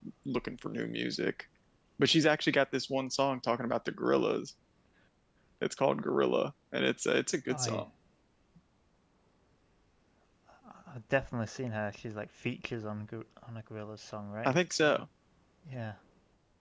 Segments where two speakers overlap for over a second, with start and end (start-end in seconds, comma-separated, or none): none